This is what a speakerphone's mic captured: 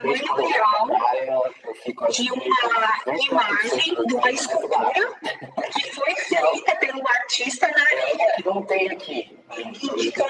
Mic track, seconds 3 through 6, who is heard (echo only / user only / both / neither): echo only